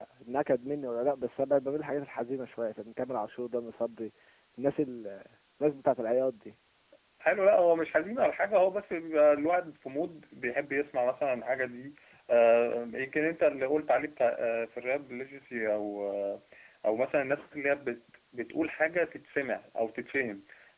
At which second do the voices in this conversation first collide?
none

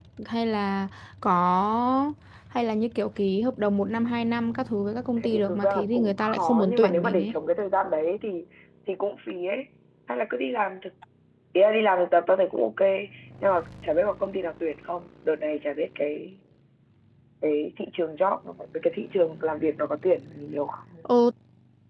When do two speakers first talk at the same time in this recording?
5.2 s

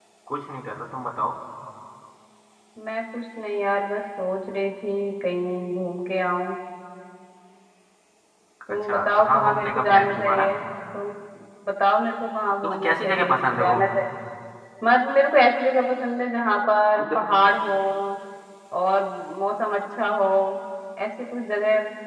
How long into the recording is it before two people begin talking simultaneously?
8.9 s

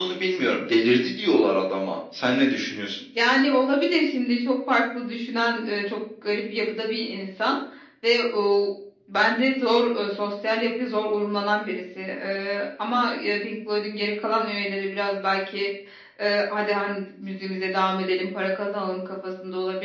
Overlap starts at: none

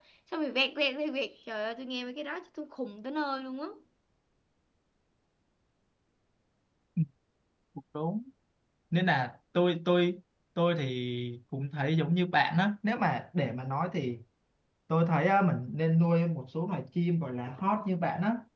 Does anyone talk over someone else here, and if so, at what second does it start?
none

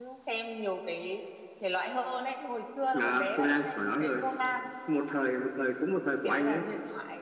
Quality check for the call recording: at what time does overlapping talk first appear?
3.0 s

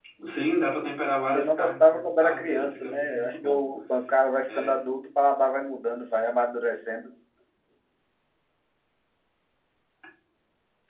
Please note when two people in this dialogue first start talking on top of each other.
1.3 s

